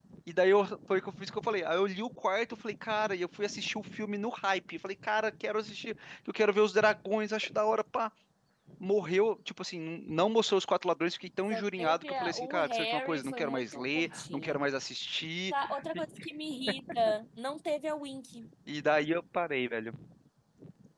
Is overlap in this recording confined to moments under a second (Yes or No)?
No